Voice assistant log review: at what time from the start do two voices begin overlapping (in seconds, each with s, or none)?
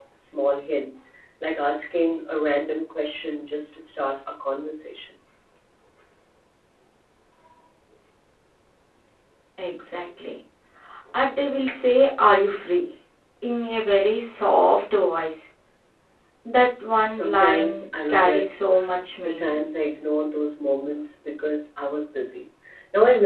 17.1 s